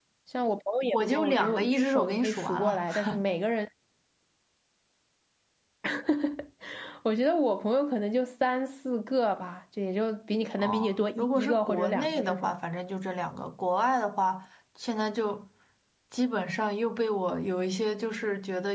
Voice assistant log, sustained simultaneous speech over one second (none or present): present